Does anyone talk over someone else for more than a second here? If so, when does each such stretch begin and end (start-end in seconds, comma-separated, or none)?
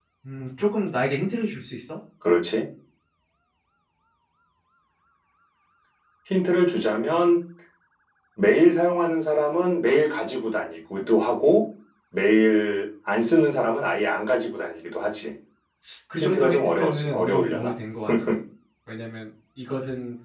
16.2-17.7